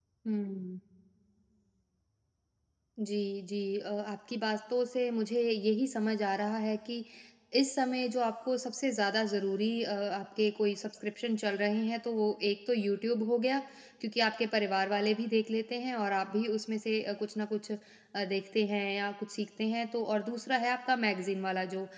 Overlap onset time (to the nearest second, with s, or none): none